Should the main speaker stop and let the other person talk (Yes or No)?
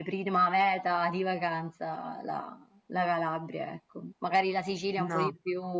No